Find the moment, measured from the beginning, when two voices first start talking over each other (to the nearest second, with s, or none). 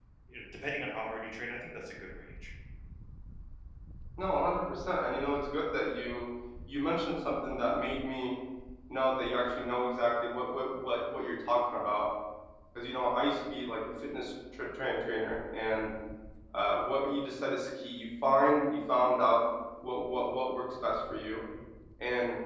none